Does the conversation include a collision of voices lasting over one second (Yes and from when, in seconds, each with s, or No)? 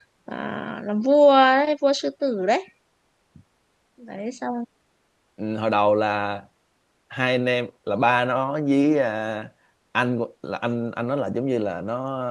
No